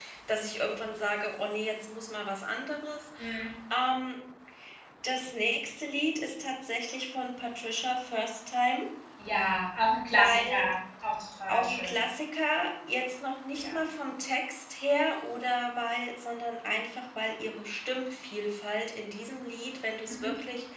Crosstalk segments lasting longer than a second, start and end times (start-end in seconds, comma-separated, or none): none